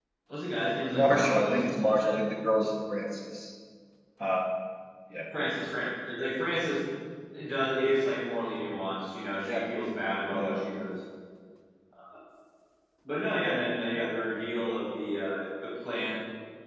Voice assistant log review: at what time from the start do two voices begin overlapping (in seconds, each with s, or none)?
0.9 s